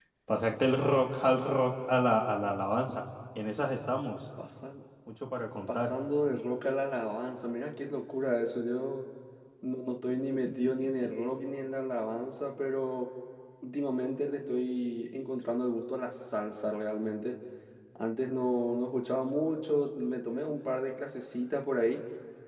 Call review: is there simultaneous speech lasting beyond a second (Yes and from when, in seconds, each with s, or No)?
No